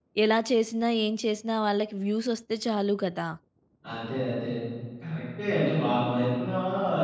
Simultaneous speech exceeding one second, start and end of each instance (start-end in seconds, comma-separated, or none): none